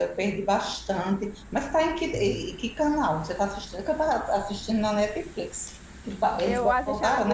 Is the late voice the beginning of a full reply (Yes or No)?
Yes